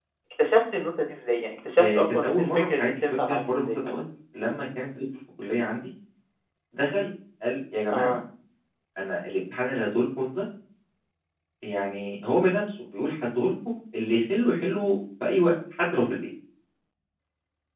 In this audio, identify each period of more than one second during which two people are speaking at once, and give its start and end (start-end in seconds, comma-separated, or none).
1.8-3.8